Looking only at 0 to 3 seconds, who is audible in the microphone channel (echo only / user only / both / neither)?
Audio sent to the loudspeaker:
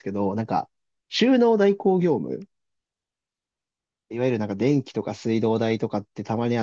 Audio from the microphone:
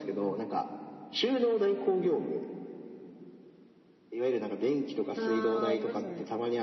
echo only